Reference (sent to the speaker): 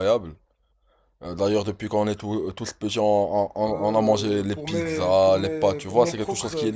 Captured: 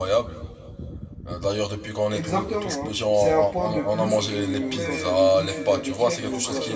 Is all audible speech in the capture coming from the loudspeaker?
No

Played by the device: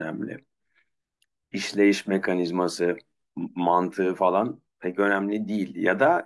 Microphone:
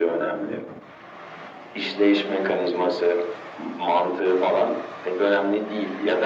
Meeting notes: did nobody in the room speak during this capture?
Yes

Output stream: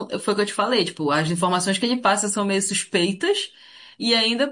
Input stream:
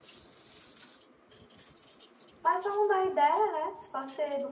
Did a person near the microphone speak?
Yes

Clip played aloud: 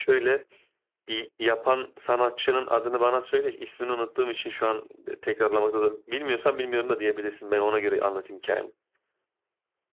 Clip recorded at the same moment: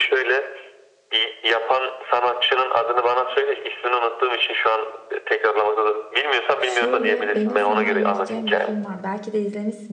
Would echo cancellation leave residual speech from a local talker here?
Yes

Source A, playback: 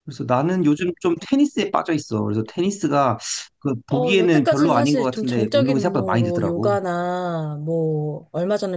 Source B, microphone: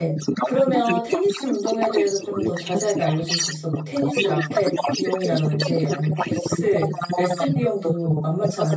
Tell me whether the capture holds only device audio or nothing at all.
No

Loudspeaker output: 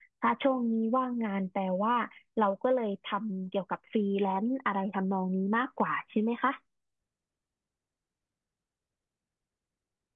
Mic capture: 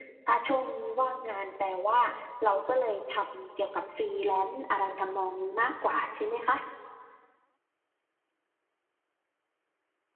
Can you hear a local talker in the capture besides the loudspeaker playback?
No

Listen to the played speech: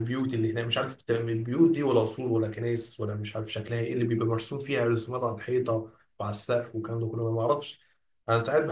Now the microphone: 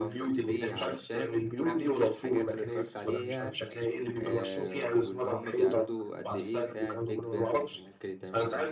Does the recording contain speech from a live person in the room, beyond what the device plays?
Yes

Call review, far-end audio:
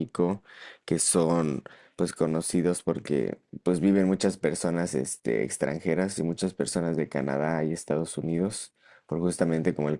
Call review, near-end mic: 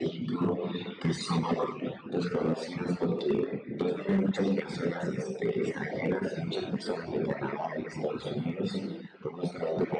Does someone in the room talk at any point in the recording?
No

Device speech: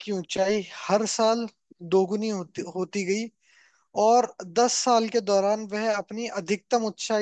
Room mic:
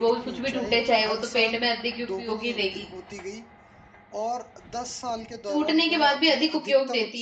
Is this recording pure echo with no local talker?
No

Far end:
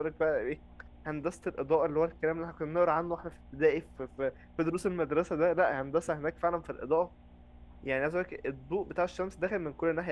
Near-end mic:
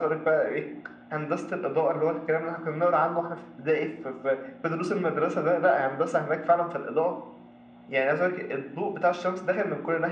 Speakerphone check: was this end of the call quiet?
Yes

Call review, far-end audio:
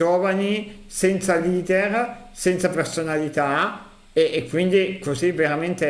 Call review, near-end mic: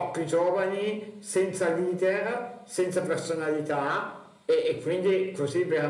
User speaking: No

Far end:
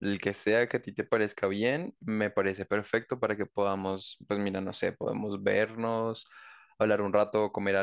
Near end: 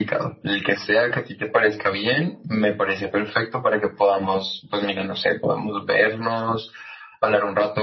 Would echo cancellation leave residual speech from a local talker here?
No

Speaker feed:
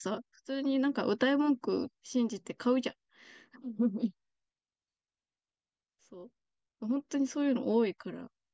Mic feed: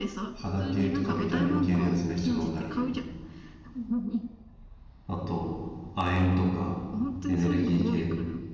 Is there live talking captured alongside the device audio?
Yes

